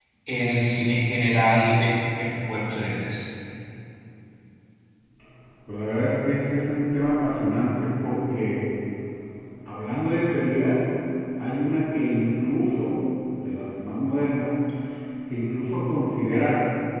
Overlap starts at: none

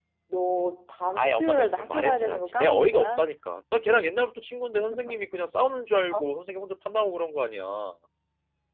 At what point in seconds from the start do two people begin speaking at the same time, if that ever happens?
1.2 s

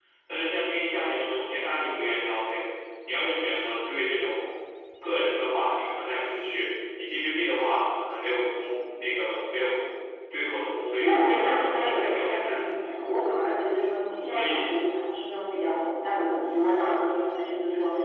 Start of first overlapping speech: 11.0 s

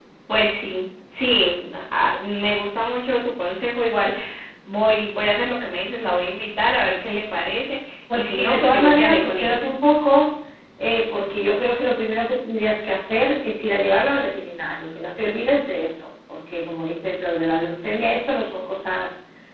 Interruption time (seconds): 8.1 s

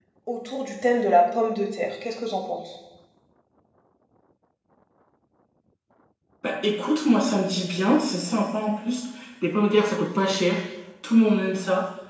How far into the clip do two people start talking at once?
none

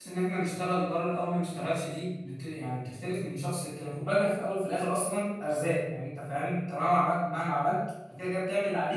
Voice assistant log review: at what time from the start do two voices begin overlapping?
none

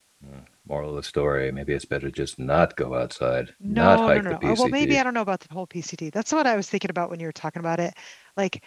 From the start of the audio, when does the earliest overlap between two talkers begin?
3.6 s

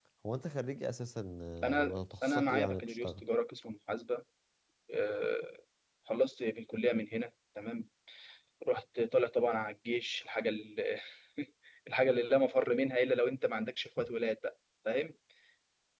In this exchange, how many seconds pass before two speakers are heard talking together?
1.6 s

